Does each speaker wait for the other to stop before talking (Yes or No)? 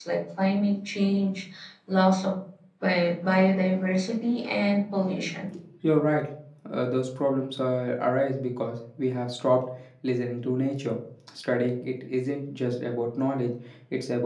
Yes